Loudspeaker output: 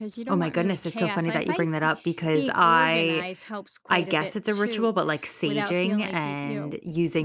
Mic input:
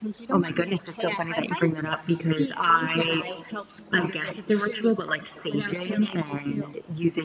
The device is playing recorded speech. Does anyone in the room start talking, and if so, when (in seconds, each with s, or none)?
none